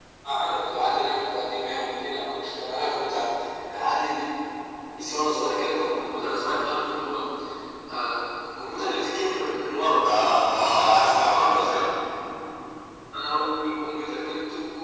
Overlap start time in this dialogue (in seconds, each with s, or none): 10.5 s